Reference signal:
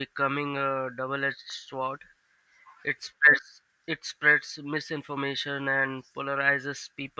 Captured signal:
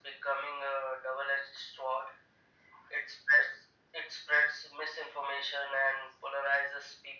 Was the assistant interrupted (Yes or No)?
No